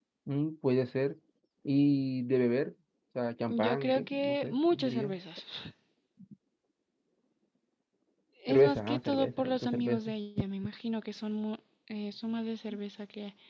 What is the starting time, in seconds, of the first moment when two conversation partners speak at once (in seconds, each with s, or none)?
3.6 s